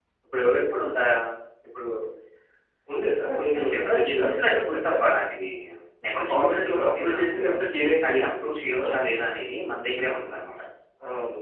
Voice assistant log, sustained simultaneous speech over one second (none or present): present